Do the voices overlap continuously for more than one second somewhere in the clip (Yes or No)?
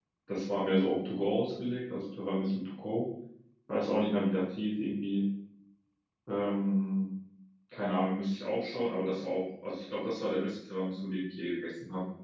No